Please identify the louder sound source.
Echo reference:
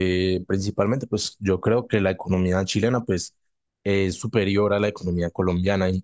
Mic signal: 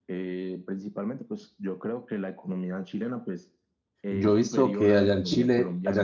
user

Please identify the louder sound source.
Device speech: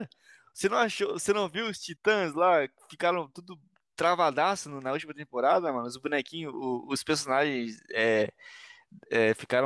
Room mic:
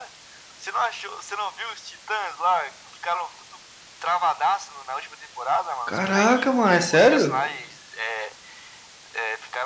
user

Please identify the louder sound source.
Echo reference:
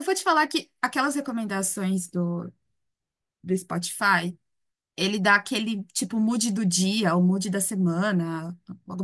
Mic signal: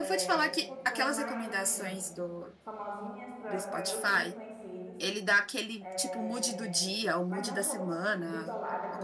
echo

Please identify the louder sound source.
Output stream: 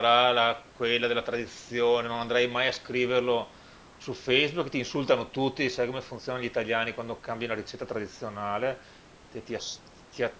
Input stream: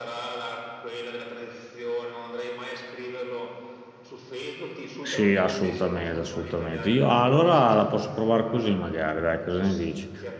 user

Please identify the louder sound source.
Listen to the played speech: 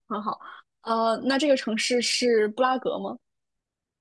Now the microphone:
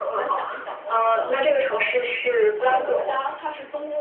echo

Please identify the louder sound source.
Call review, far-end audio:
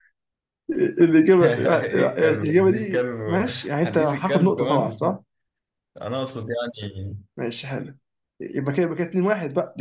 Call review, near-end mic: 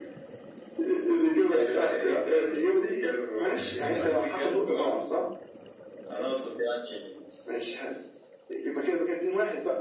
echo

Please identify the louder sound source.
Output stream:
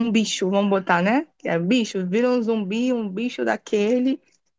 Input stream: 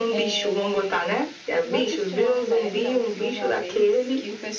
echo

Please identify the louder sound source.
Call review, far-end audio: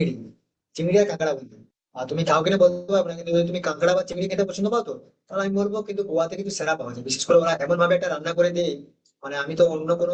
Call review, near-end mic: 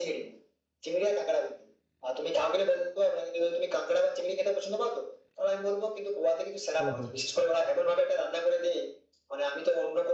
echo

